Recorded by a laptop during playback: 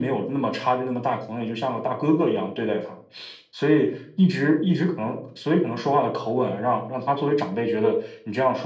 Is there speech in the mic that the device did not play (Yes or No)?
No